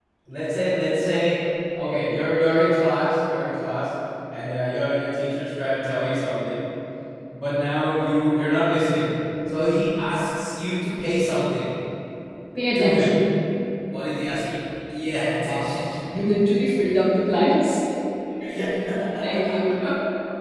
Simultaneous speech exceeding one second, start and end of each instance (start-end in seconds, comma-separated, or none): none